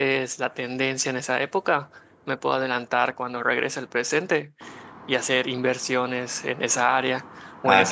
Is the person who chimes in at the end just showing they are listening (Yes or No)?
No